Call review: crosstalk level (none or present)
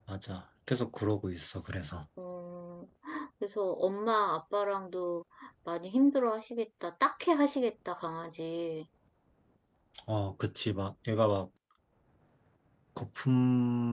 none